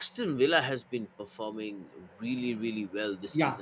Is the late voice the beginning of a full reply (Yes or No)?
Yes